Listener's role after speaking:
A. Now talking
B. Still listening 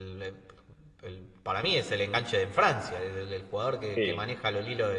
B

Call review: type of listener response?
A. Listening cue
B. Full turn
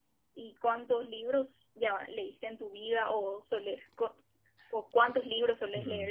B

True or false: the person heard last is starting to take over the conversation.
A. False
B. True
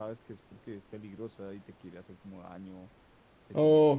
B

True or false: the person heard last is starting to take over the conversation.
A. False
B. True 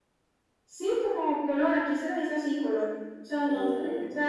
A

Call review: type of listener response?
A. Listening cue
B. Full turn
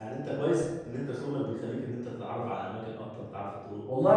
B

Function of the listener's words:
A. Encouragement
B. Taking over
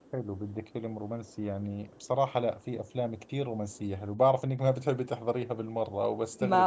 B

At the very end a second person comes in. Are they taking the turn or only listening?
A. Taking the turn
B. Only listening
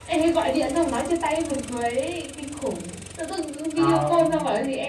B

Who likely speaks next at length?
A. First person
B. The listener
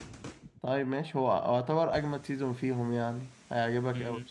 B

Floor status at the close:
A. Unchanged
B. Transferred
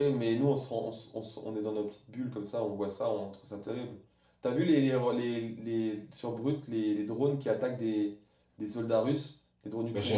B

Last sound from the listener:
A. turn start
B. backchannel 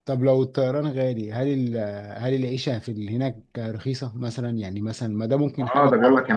A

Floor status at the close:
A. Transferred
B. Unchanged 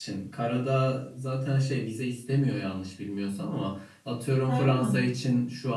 B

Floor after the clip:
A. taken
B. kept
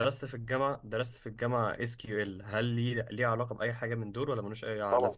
A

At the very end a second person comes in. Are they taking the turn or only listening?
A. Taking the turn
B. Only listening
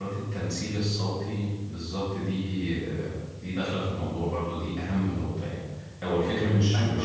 B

